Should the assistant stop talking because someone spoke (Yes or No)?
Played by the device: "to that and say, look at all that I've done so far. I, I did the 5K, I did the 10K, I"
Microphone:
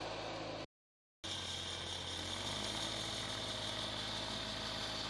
No